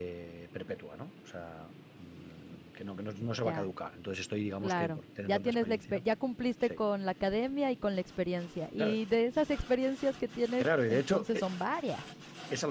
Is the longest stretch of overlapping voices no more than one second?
No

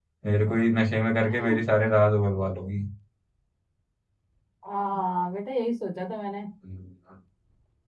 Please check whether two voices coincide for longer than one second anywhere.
No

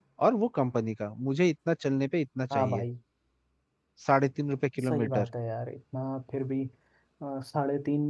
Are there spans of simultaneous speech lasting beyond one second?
No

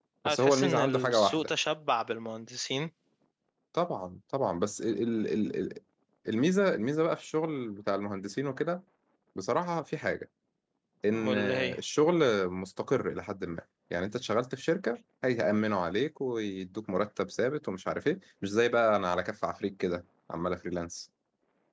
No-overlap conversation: No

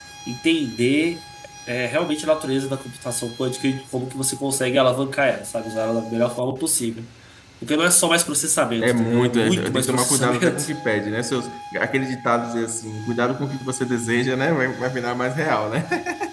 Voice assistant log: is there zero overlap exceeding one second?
No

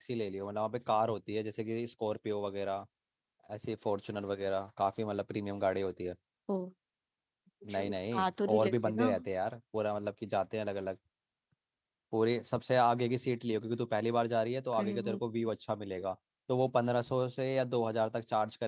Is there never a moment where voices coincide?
No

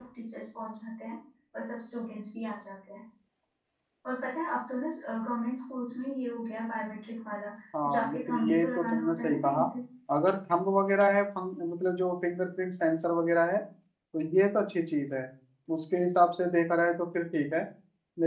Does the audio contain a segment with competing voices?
Yes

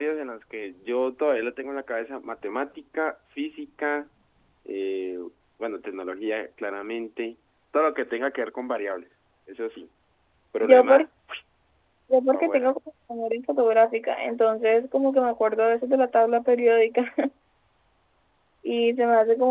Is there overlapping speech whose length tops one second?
No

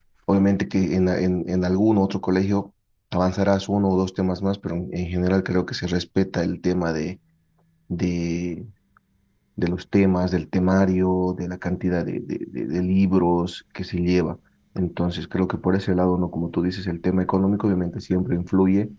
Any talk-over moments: No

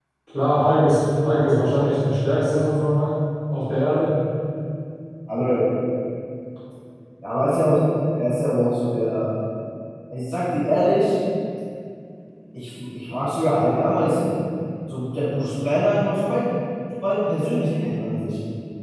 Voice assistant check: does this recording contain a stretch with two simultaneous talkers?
No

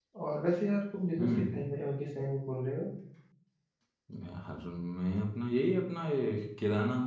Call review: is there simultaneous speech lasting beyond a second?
No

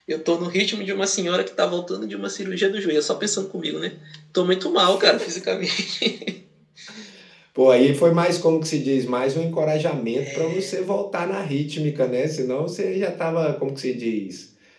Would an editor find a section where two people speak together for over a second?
No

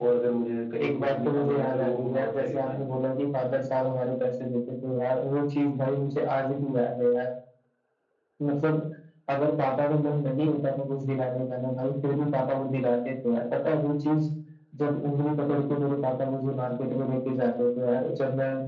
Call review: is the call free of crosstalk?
No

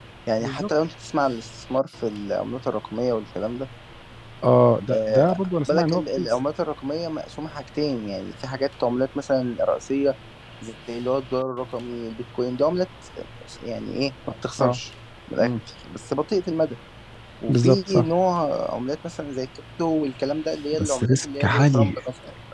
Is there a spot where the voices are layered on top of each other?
Yes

